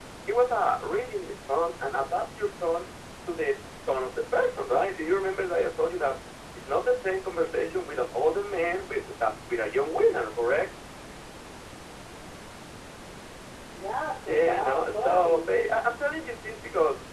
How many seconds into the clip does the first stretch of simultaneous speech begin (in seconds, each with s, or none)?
14.3 s